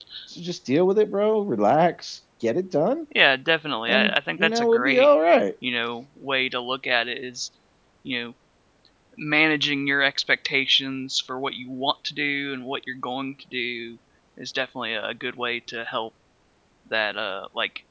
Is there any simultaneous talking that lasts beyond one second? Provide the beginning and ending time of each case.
3.9-5.1

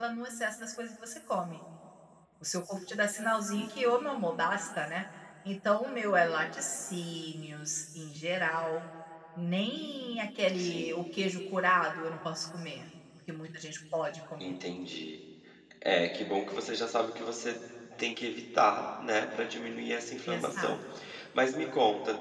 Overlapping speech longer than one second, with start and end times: none

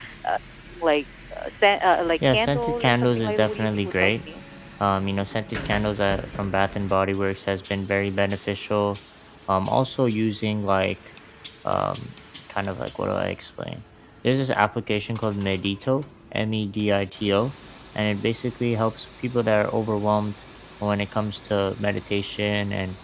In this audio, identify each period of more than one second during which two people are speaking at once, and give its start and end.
2.3-4.1

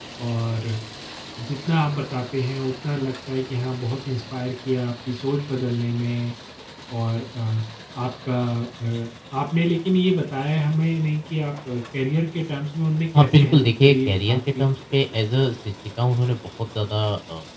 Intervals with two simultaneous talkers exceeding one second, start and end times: 13.2-14.7

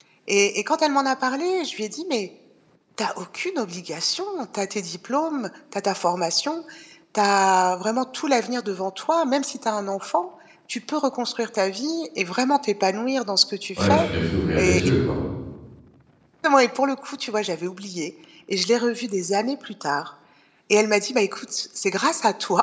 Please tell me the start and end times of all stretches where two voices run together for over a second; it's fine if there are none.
none

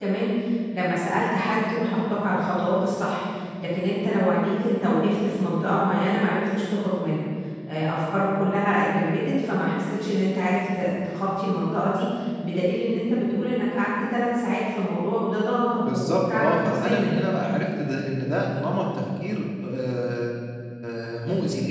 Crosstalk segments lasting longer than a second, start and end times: 15.8-17.1

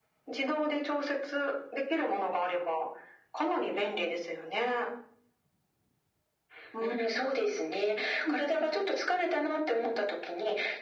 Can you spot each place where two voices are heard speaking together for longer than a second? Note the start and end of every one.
none

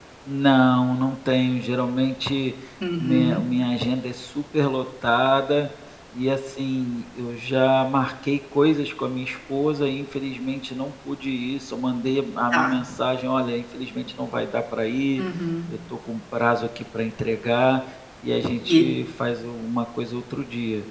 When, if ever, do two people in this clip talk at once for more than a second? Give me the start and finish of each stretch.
none

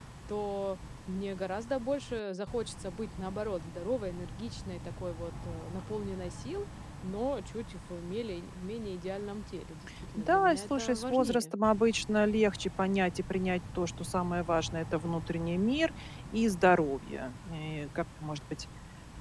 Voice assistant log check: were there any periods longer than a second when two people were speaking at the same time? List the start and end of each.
10.2-11.5

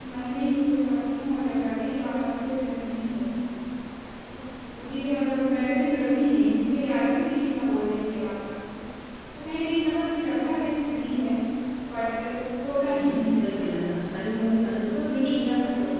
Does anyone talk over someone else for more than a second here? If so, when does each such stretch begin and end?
12.8-14.4

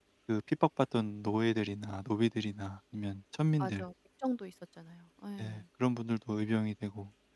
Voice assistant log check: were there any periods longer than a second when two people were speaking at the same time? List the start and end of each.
none

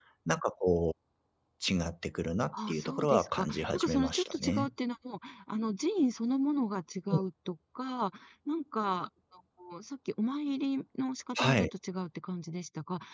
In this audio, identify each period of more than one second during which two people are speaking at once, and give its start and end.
2.7-4.7

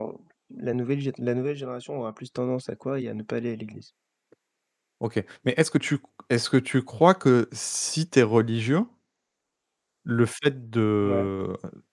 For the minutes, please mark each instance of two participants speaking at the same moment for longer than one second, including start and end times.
none

